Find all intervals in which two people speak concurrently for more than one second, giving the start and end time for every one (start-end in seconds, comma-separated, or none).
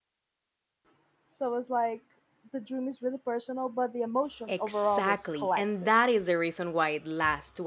4.5-5.9